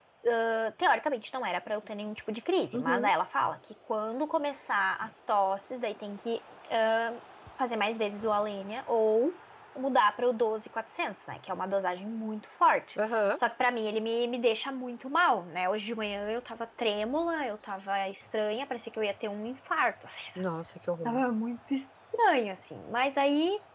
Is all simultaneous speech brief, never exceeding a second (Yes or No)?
Yes